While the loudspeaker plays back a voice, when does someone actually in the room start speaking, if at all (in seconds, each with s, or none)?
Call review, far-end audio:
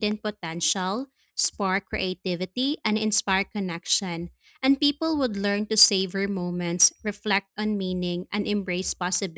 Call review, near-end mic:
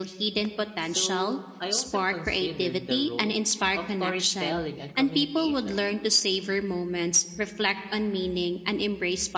0.8 s